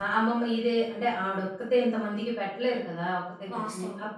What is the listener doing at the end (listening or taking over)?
listening